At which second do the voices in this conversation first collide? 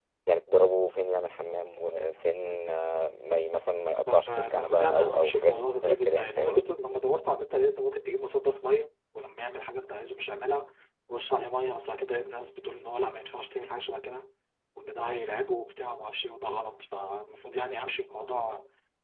4.1 s

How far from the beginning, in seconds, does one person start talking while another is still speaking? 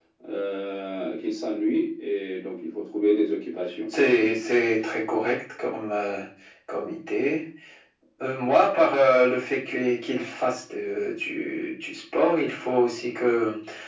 none

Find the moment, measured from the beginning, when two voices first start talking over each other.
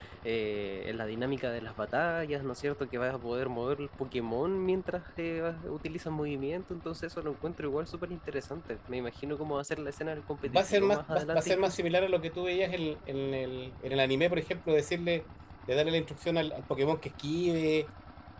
10.4 s

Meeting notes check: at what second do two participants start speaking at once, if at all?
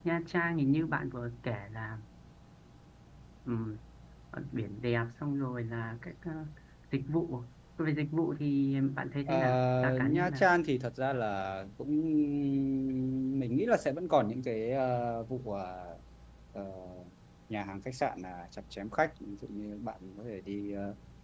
9.3 s

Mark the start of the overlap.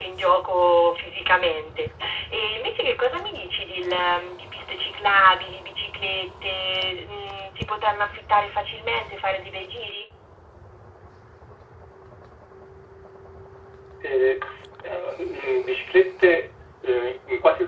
none

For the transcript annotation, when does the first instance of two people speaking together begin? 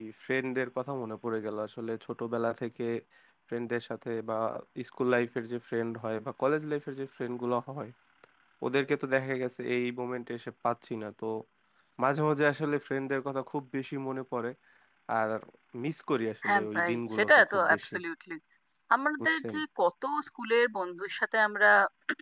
16.4 s

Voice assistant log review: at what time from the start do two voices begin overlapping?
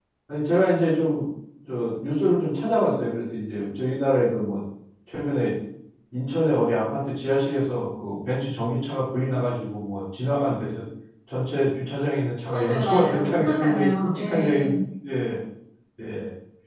12.5 s

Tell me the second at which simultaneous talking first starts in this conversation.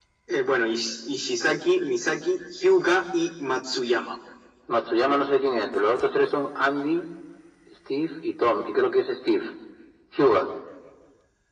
none

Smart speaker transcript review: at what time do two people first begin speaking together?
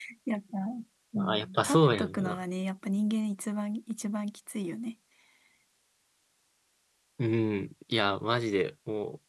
1.2 s

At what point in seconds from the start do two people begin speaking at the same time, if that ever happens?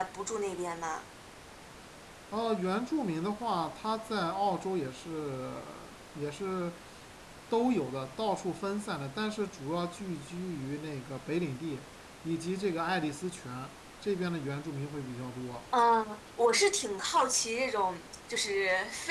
none

